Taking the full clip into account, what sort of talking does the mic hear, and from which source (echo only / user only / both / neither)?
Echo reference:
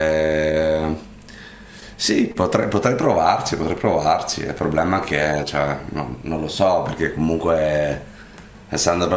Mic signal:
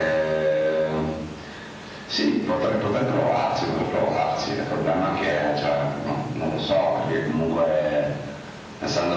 echo only